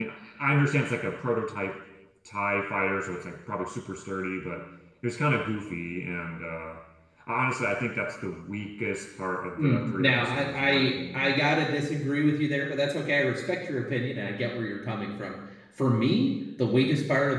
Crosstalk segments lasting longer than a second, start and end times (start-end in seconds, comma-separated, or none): 9.6-11.3